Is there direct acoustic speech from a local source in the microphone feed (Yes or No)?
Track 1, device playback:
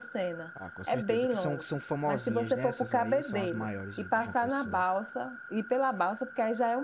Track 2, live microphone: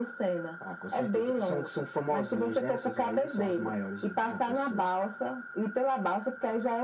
No